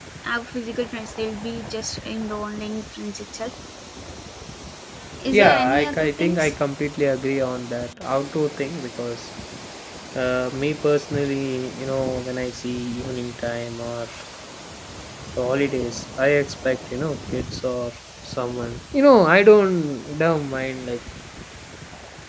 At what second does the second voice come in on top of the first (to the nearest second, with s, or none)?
5 s